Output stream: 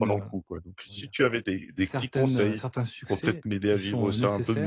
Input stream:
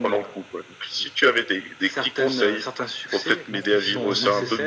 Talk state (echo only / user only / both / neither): both